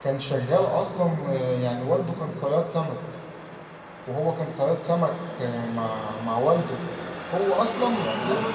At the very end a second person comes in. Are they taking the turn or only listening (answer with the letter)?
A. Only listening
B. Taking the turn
A